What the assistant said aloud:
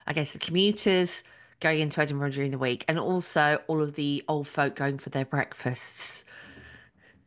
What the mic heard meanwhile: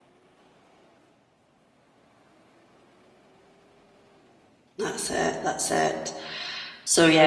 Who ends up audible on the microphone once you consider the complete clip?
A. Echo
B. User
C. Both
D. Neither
B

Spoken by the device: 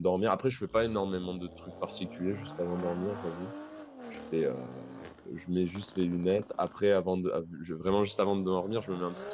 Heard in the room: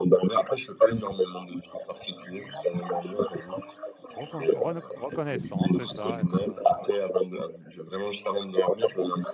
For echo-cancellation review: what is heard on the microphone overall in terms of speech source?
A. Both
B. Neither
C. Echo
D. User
A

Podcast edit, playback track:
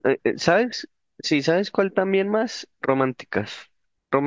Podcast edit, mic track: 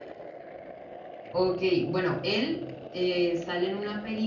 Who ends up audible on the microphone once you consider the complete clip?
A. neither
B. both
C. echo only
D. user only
D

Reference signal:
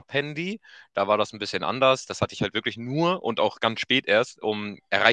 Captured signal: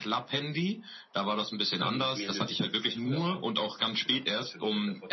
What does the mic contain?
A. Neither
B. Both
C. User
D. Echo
B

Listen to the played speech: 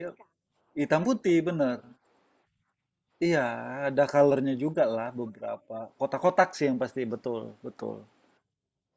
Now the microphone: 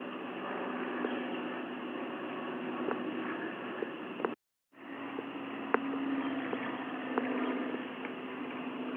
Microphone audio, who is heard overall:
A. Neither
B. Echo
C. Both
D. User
A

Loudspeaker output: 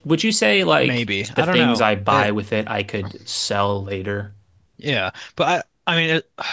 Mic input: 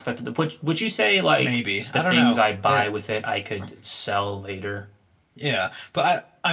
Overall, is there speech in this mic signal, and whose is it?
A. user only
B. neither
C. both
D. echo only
D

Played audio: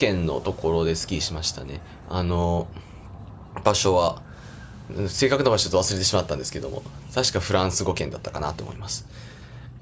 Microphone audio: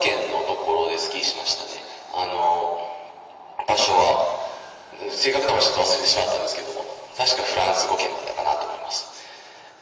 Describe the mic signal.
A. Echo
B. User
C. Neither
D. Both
A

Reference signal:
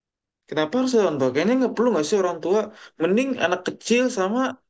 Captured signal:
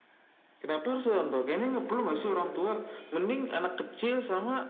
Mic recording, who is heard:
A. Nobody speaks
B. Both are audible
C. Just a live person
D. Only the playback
D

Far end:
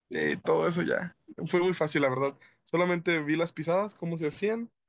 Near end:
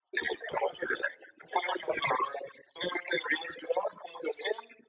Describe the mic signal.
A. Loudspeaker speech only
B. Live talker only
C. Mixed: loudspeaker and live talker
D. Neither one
A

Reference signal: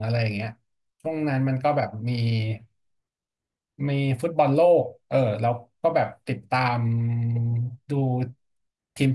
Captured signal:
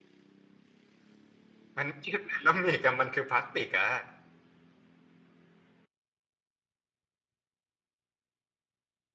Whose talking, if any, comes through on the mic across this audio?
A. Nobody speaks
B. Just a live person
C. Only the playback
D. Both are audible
B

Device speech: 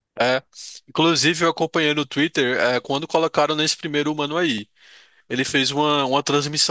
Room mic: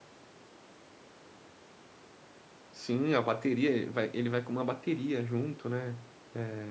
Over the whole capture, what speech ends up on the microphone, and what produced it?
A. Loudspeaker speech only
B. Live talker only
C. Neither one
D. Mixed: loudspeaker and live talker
B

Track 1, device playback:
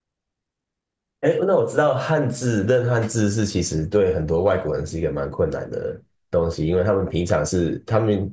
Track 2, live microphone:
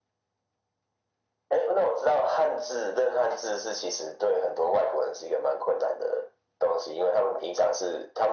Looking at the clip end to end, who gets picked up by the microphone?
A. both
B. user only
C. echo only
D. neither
C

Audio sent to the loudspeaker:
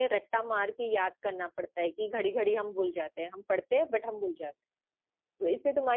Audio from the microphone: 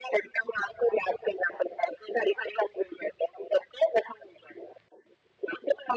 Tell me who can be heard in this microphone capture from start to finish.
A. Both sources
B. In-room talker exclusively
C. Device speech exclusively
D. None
C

